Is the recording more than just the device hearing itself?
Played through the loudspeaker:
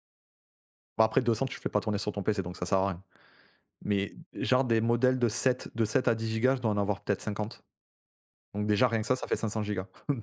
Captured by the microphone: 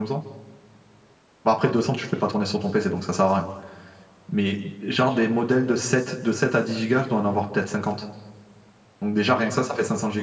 No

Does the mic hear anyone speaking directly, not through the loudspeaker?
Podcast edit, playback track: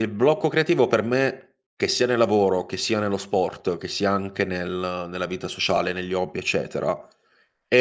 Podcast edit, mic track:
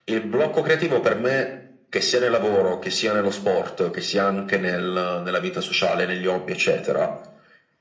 No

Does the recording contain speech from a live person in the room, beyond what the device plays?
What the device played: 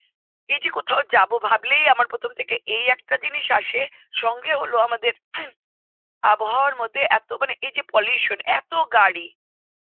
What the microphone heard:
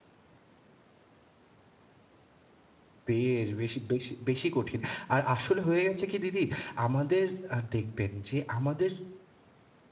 Yes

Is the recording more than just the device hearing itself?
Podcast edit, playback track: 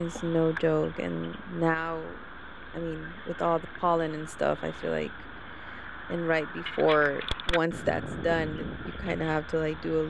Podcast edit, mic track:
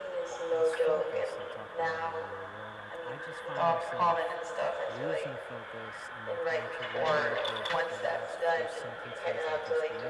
Yes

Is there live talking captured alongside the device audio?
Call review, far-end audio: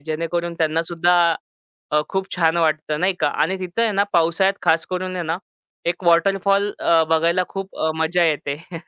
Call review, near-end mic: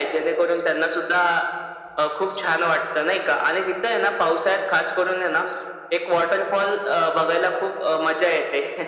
No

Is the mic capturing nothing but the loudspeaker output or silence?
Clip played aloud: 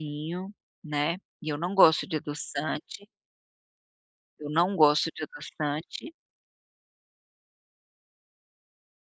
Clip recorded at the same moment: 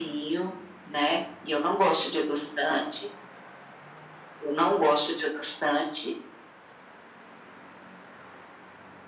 Yes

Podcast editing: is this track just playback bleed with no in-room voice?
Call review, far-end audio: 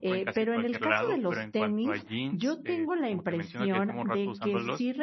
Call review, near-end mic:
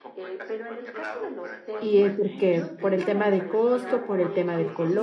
No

